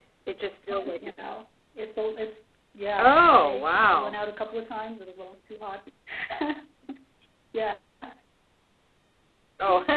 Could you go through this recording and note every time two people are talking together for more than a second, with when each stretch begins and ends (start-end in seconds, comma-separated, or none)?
3.0-4.2